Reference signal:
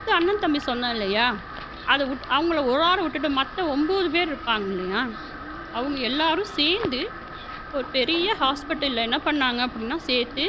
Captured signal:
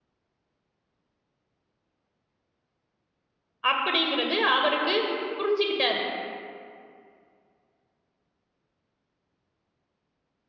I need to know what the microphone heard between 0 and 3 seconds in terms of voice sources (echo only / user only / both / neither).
neither